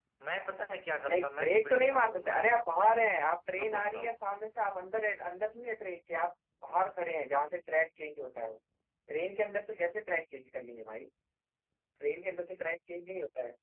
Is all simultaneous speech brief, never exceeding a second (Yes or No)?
No